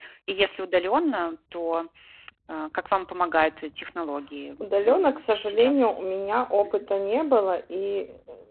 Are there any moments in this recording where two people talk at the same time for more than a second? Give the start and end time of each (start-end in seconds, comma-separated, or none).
4.6-5.9